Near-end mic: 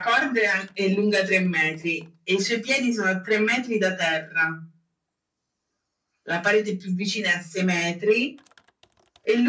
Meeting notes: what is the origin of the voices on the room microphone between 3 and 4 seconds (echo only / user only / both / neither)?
echo only